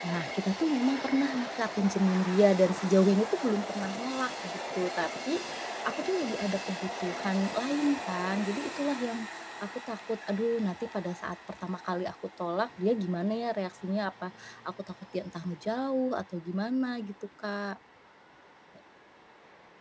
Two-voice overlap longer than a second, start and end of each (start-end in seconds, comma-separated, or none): none